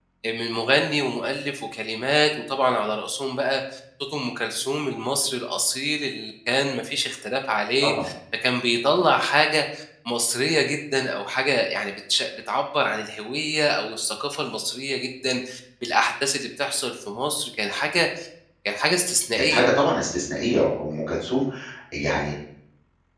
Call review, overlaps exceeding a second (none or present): none